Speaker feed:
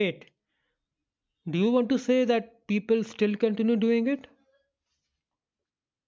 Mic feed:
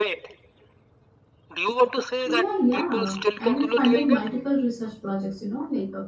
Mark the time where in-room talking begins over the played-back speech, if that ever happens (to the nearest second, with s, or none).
2 s